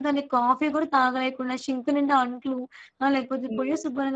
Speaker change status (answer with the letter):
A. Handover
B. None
B